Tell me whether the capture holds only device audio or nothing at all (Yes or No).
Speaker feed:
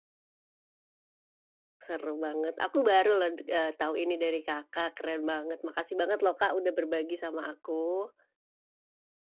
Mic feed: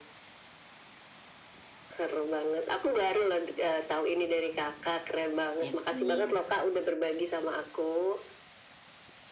No